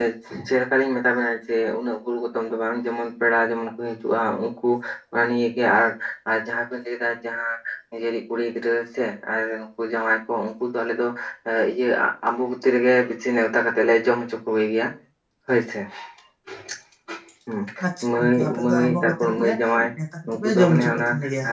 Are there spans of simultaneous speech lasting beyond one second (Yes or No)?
Yes